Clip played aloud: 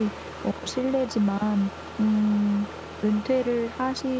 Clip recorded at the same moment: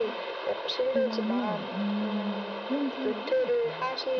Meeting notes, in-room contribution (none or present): present